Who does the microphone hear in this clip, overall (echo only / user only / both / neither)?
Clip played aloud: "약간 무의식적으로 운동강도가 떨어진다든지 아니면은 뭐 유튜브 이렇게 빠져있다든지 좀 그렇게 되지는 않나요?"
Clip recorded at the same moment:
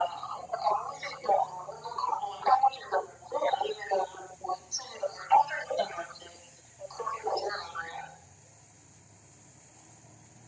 echo only